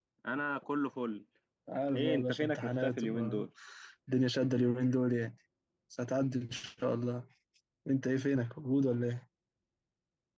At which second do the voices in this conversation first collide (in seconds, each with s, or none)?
1.9 s